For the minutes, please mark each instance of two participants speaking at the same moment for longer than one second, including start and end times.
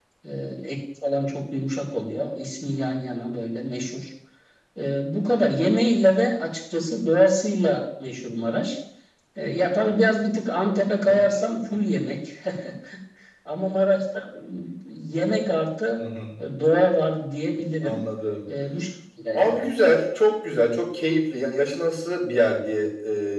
none

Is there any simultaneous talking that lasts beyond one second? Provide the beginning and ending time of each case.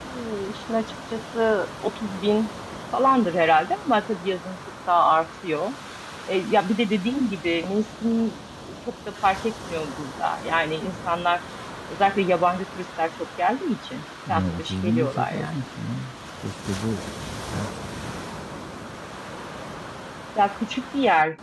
14.3-15.5

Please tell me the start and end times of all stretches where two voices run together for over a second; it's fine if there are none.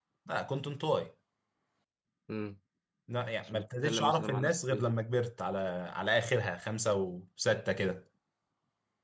3.4-4.9

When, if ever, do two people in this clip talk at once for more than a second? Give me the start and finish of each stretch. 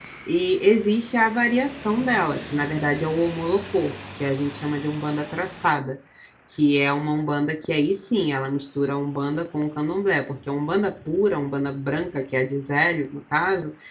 none

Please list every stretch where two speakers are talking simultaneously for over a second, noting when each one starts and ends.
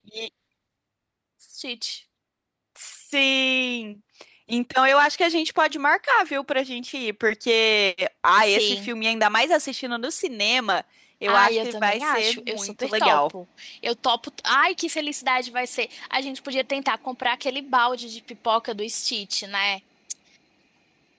11.3-13.2

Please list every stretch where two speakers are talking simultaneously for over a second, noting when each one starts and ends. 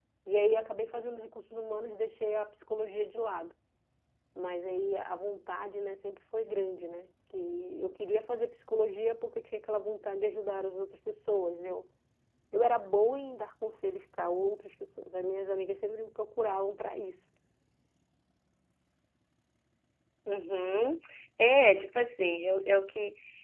none

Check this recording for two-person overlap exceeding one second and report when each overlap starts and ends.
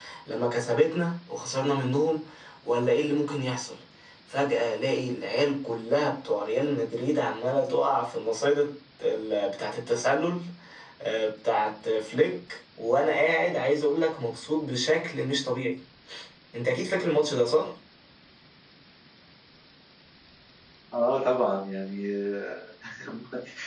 none

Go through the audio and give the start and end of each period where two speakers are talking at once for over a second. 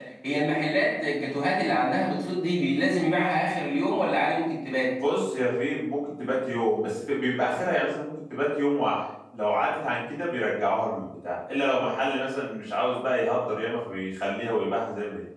none

